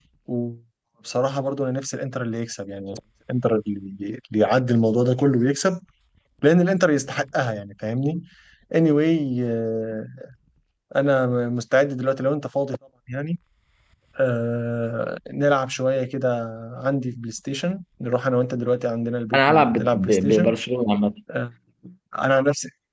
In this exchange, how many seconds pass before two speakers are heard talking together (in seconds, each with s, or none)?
19.3 s